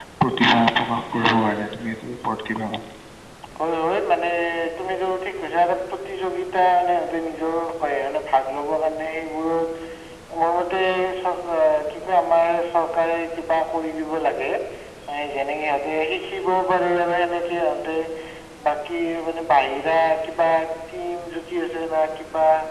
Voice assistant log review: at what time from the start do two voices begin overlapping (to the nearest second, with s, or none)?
none